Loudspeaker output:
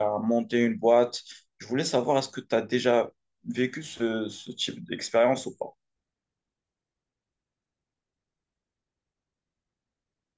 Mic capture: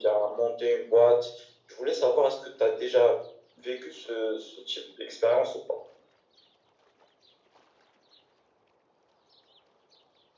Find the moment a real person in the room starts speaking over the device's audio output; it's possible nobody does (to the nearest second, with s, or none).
none